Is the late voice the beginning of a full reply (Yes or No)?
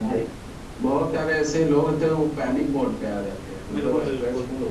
Yes